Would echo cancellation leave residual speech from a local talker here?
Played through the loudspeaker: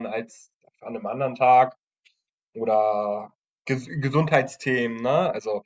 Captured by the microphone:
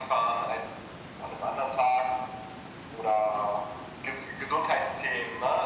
No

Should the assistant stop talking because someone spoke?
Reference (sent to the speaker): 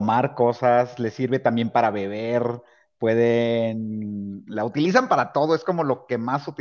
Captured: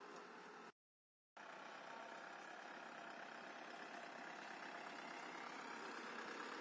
No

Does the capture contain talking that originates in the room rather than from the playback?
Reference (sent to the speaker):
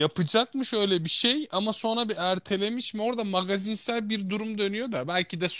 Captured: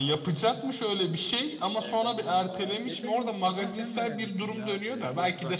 Yes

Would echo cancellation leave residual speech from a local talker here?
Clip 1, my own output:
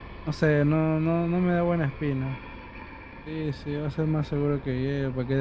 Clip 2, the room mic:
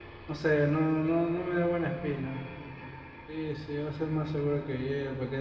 No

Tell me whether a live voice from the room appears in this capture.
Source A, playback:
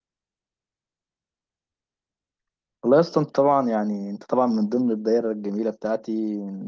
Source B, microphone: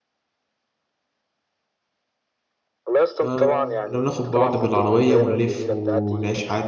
Yes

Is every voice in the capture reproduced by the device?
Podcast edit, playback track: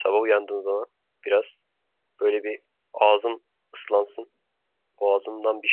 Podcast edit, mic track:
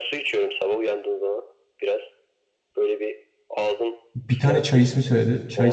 No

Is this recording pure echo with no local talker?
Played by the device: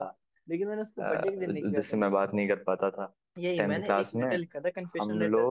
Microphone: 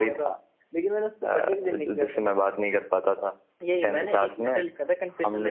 Yes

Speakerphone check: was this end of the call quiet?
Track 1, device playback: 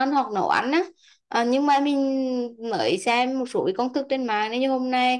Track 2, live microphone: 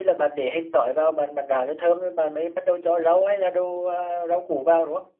No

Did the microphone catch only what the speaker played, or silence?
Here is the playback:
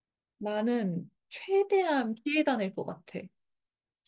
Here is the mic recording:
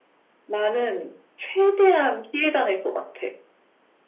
Yes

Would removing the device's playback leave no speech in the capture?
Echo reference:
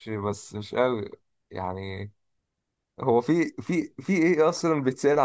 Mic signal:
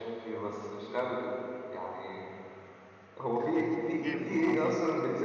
No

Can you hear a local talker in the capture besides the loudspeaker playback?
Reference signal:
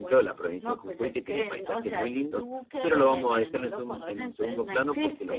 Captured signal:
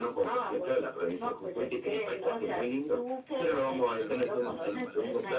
Yes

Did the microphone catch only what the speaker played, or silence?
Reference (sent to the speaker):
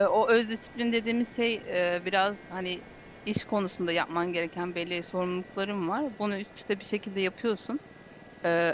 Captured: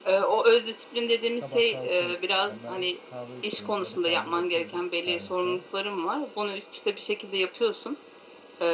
No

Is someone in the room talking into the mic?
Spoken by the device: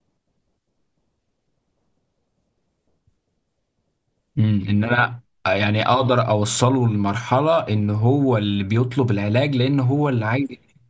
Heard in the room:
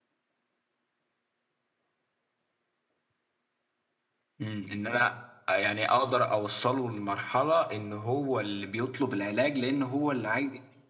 No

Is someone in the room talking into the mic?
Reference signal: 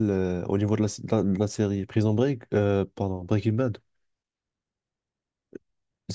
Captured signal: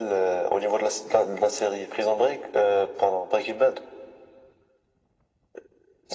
No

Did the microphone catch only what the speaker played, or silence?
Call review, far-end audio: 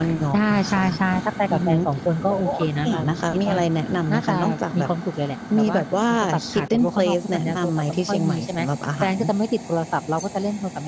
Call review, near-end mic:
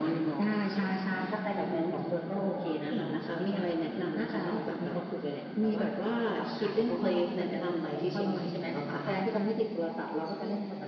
No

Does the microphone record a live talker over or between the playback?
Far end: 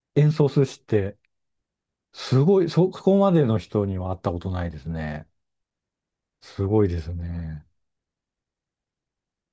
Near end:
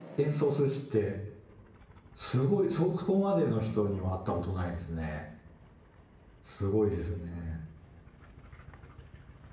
No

